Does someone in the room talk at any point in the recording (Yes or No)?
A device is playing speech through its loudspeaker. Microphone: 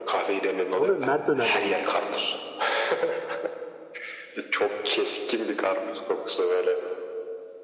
Yes